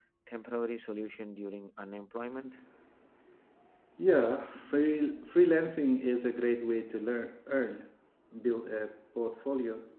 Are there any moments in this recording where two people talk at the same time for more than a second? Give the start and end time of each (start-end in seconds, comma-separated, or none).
none